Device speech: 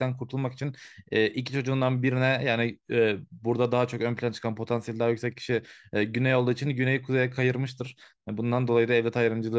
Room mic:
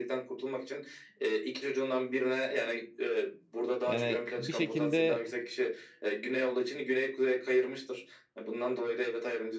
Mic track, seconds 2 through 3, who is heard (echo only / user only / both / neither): echo only